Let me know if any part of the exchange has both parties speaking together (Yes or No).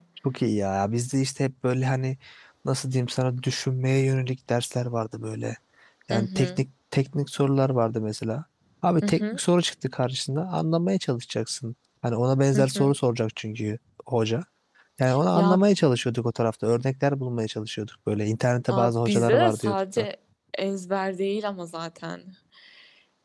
Yes